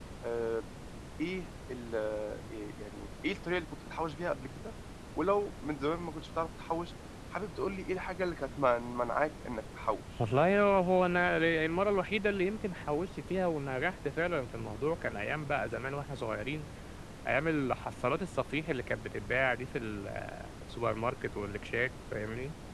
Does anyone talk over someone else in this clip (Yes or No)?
No